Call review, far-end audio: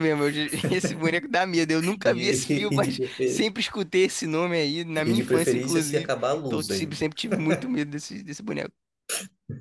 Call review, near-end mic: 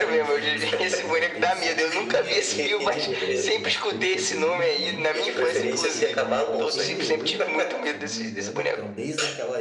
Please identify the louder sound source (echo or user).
echo